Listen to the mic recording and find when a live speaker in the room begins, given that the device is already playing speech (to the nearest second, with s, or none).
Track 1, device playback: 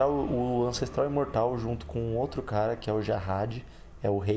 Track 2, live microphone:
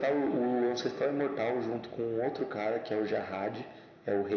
none